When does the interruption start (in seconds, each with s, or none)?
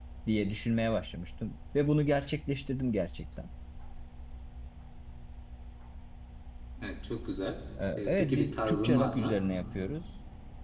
7.8 s